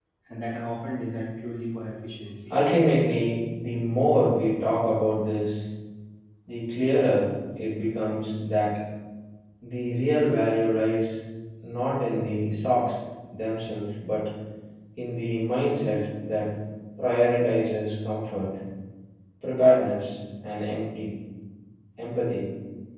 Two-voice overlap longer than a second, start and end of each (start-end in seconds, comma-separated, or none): none